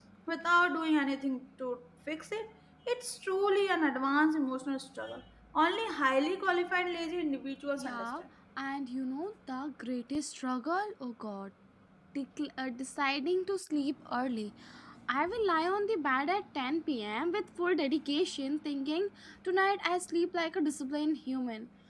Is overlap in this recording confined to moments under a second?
Yes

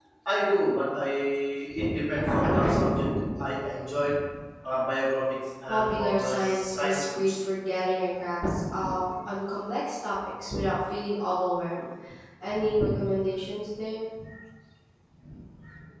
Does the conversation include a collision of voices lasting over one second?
Yes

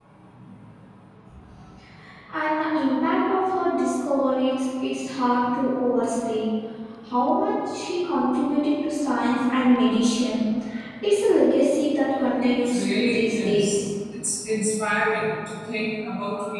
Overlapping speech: Yes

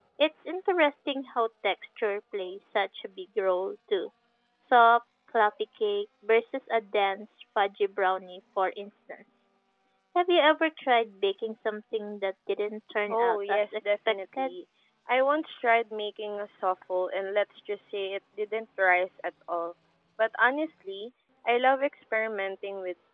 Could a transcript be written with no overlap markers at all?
No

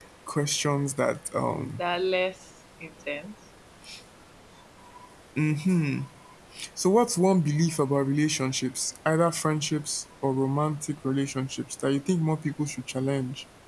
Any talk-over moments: No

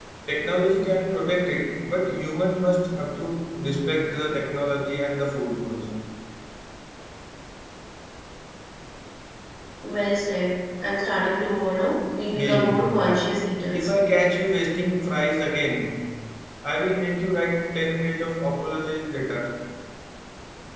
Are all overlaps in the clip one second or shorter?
No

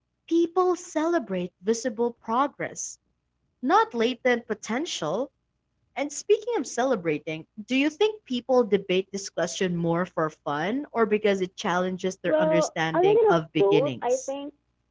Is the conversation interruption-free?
No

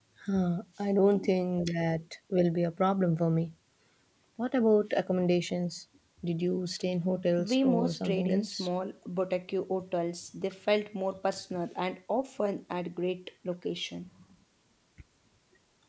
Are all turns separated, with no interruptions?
No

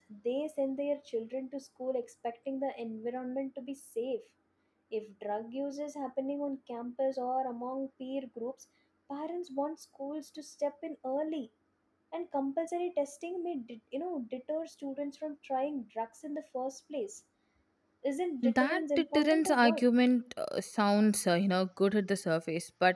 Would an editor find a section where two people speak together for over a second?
Yes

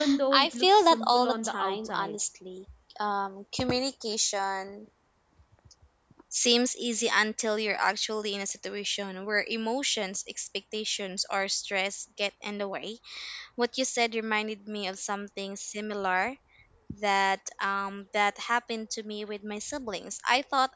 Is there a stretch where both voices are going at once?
Yes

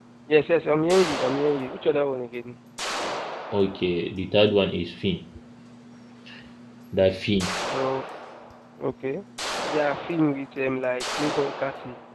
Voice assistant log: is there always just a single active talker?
Yes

